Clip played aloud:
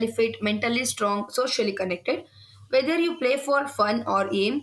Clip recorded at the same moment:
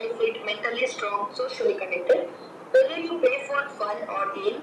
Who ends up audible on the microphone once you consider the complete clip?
echo only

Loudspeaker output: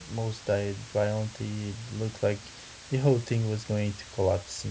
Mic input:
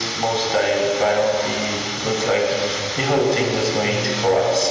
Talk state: both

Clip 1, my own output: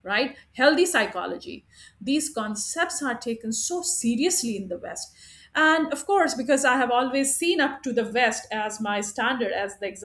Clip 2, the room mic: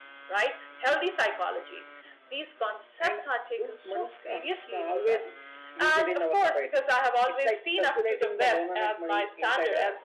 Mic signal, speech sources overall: both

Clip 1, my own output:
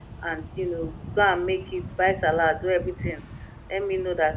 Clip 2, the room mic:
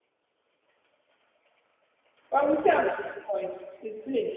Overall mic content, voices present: user only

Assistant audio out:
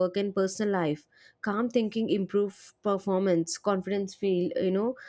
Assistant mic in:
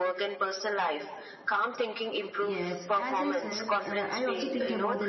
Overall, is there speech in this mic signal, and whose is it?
both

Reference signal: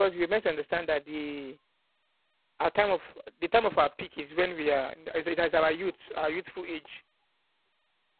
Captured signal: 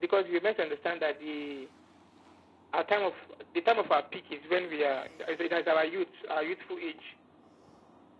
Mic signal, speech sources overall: echo only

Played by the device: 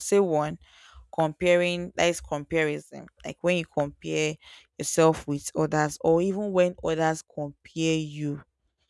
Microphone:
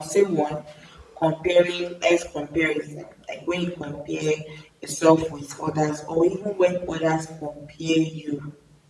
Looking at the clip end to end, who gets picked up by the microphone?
echo only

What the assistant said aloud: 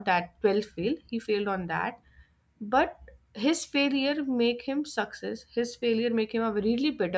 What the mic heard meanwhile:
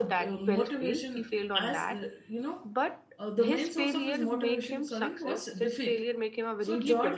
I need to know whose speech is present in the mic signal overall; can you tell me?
both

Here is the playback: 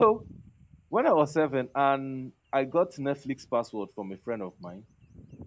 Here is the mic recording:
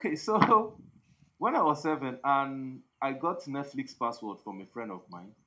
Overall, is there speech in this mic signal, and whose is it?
echo only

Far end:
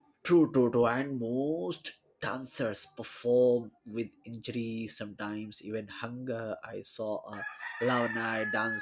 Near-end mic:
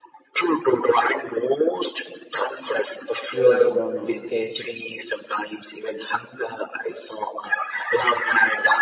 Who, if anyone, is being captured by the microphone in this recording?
both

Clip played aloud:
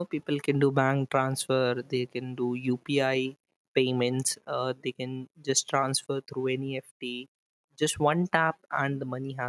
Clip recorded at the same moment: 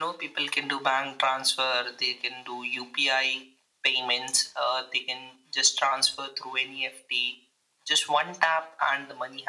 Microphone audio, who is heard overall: echo only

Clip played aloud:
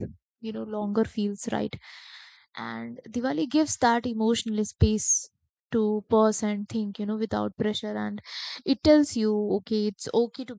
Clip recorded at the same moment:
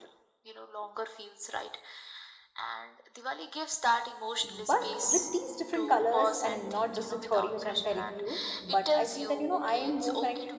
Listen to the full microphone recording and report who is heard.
both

